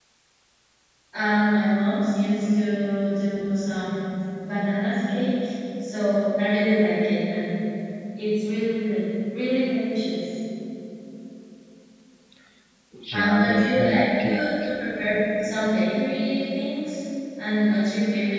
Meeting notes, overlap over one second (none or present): present